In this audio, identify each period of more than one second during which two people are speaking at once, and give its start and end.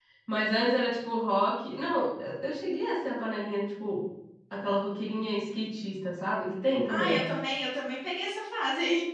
none

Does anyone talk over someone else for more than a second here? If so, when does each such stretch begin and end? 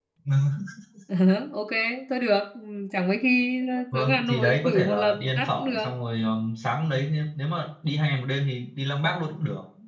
3.9-5.9

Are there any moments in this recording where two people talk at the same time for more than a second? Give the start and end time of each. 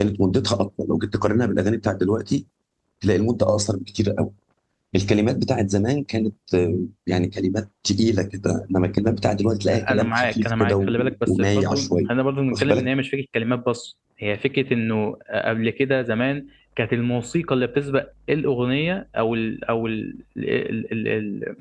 9.9-12.0

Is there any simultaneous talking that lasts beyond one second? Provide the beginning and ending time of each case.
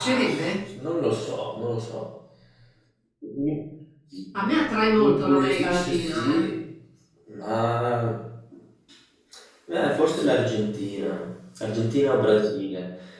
5.0-6.4

